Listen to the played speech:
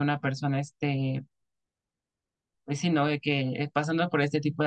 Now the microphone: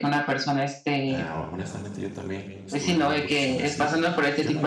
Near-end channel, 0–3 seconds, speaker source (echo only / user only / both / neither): both